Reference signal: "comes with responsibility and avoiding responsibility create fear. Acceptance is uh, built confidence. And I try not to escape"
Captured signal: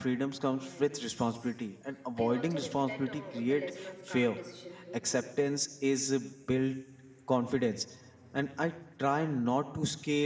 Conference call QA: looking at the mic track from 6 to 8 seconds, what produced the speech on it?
echo only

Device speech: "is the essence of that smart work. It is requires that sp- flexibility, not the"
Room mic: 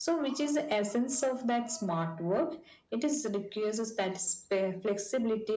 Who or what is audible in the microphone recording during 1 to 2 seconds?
echo only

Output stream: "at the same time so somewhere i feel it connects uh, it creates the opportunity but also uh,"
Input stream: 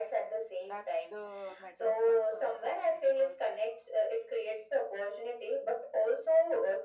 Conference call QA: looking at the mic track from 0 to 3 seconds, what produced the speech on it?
both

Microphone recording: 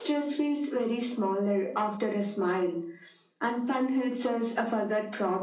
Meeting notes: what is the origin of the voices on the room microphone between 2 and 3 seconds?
echo only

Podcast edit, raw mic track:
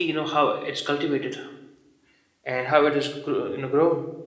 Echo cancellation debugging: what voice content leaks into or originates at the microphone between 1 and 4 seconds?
user only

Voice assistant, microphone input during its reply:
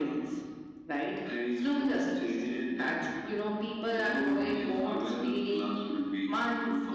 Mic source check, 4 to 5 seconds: echo only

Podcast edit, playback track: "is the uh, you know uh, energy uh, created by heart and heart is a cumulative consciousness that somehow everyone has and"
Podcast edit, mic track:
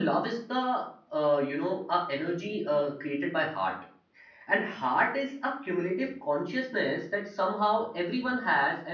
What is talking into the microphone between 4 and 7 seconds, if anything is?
echo only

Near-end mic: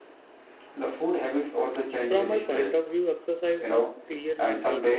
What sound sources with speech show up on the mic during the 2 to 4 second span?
both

